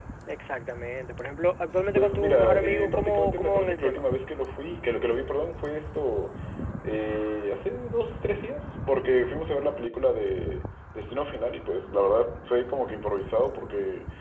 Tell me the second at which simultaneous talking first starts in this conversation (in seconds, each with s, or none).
1.9 s